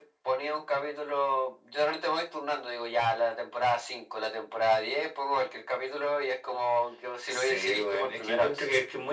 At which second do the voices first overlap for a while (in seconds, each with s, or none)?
7.3 s